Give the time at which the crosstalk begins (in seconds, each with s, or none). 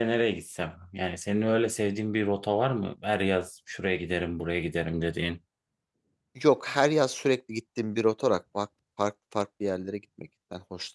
none